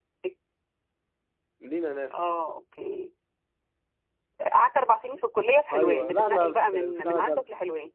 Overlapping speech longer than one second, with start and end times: 5.7-7.4

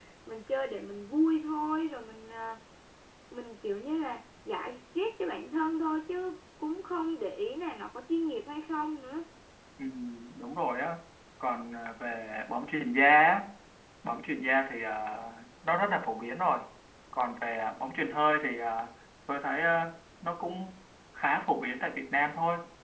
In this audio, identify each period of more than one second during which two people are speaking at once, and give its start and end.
none

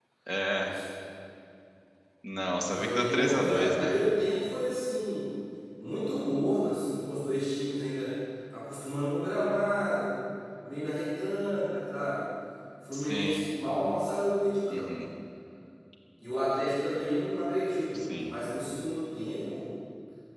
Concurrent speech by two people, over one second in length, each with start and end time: 2.7-3.9

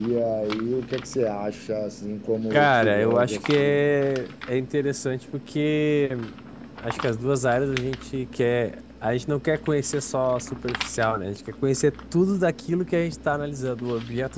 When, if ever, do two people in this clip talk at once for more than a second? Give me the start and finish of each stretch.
2.5-3.8

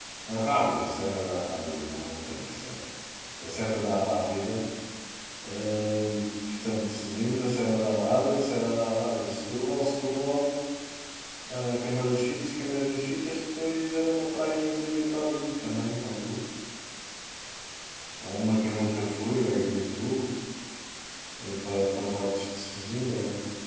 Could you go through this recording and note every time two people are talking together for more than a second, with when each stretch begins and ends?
none

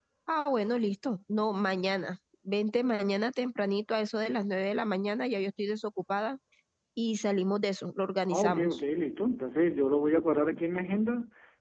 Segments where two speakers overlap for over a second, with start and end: none

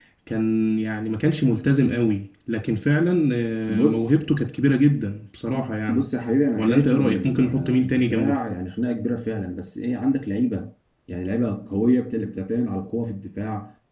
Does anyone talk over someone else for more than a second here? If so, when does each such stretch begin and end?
6.6-8.3

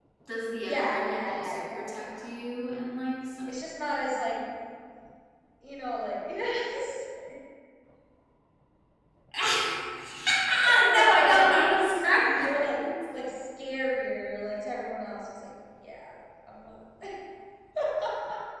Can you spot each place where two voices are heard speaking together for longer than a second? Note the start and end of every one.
0.6-2.0, 10.7-12.8

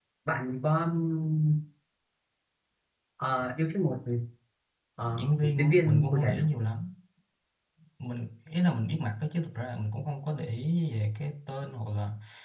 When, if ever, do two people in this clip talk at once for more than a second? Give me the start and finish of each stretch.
5.1-6.6

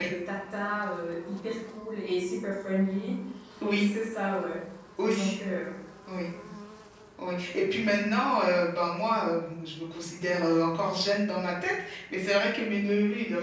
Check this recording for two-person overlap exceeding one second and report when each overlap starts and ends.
none

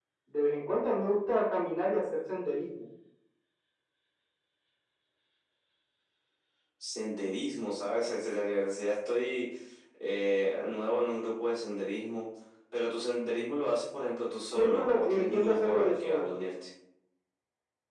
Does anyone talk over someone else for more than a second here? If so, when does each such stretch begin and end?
14.6-16.3

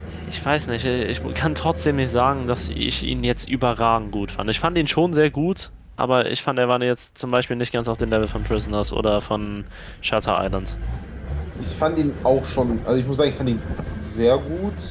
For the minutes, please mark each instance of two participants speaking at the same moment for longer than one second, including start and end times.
none

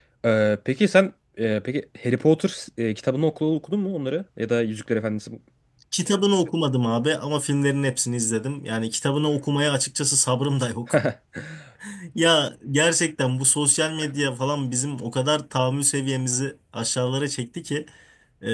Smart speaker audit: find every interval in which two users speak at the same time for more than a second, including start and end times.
none

